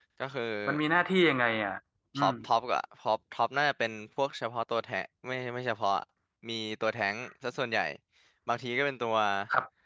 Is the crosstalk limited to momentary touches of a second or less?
Yes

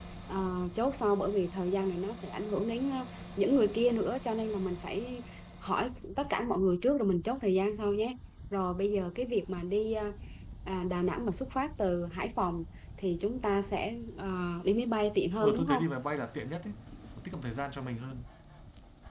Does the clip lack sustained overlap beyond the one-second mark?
Yes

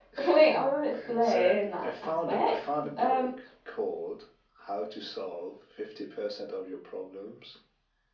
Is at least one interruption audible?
Yes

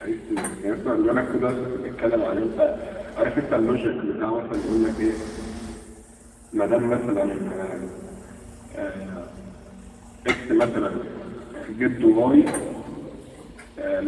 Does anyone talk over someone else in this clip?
No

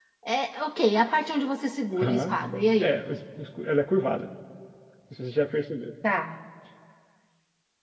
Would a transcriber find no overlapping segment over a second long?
Yes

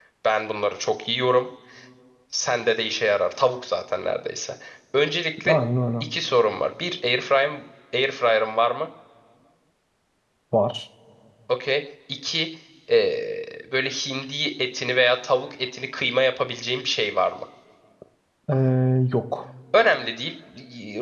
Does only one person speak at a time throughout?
Yes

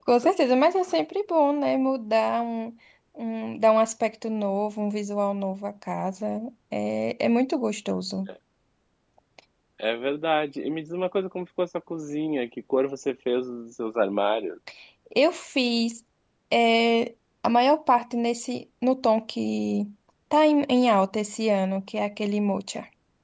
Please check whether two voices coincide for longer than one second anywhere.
No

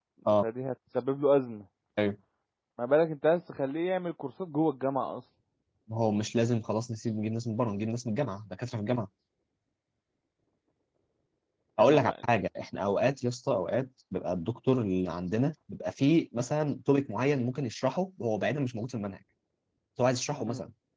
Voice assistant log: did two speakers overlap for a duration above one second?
No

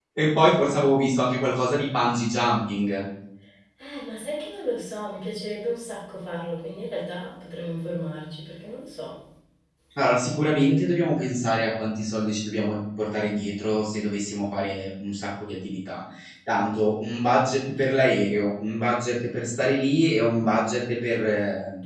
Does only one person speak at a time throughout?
Yes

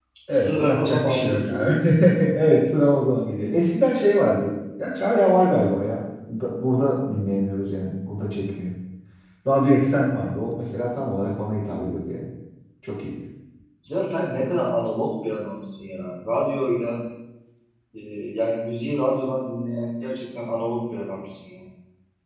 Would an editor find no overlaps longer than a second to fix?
No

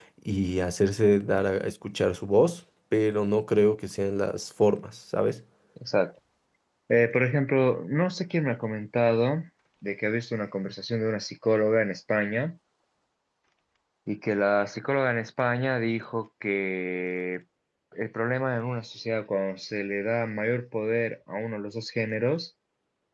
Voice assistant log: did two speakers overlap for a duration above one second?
No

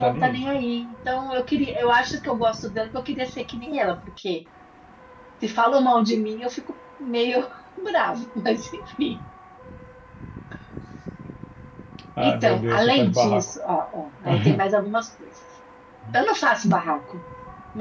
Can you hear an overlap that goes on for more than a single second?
Yes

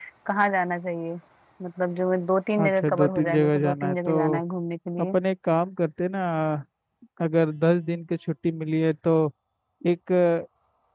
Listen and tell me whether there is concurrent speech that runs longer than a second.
Yes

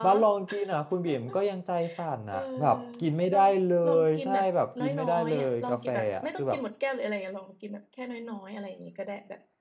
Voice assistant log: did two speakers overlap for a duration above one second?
Yes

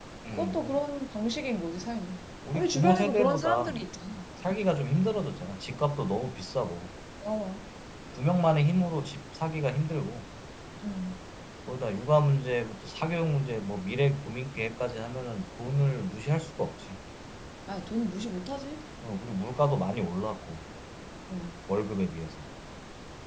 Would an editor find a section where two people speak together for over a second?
Yes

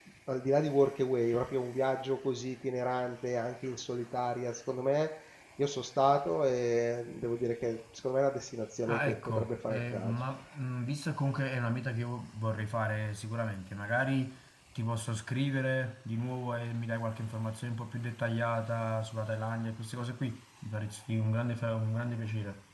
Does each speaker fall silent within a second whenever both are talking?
No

